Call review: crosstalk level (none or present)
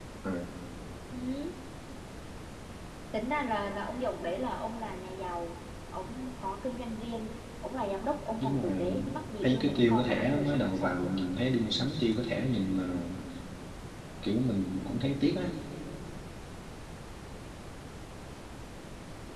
present